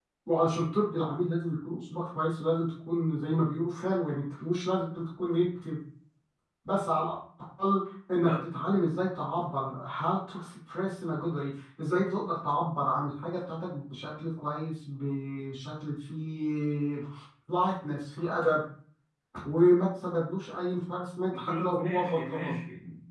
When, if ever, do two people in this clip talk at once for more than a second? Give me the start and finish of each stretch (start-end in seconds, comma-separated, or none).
21.3-22.6